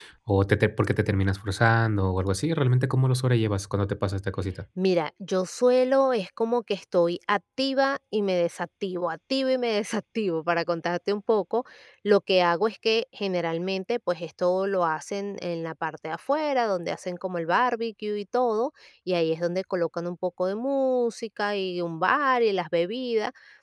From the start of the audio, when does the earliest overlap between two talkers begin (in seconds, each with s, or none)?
none